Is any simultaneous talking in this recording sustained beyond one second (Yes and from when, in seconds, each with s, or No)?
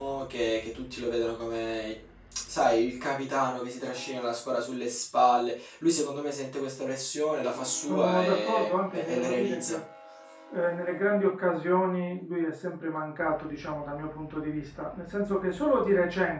Yes, from 7.9 s